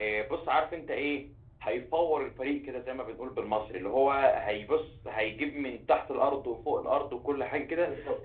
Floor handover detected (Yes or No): No